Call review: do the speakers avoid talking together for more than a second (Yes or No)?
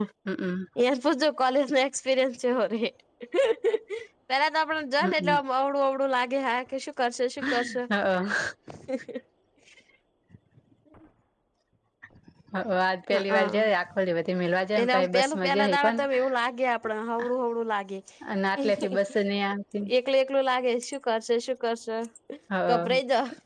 No